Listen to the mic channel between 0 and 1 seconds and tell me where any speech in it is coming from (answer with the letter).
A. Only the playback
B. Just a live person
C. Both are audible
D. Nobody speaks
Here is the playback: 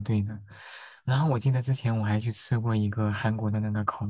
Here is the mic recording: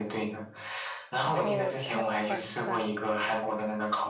A